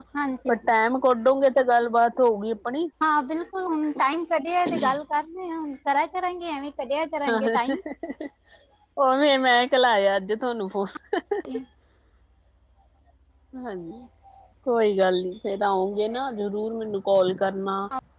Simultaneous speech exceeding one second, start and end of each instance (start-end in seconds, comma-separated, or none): none